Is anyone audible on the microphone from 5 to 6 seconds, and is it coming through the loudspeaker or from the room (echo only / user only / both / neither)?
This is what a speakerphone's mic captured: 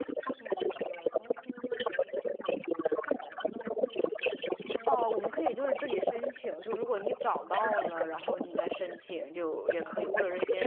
both